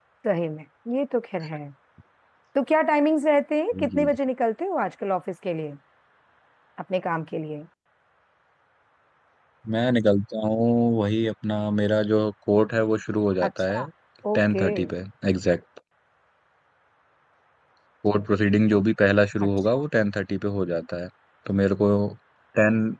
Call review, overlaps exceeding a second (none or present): none